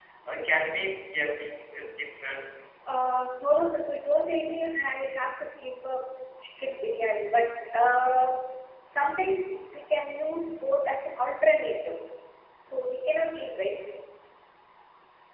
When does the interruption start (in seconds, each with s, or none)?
none